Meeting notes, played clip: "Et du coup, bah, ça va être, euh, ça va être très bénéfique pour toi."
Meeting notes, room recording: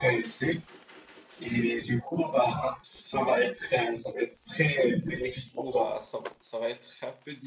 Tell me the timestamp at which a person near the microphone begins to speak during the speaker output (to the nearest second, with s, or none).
5 s